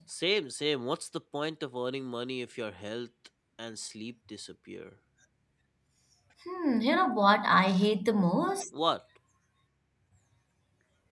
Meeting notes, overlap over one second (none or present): none